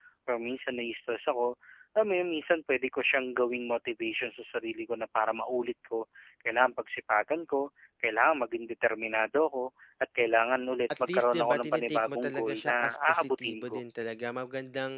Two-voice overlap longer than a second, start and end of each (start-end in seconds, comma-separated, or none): 11.0-13.8